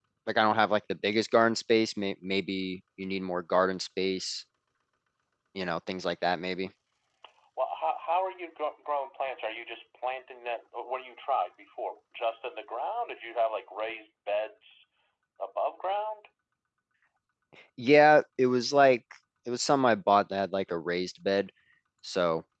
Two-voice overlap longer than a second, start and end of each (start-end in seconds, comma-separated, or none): none